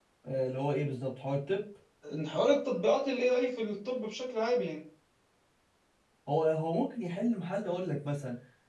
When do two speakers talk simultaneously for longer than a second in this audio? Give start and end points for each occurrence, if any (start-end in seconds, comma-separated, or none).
none